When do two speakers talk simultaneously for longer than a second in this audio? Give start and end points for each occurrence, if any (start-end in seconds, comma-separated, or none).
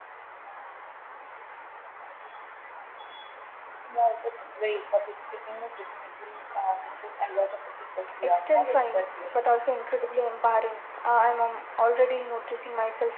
8.2-9.4